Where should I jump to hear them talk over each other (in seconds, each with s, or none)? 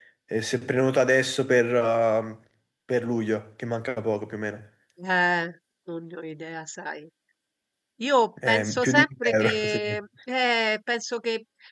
8.5 s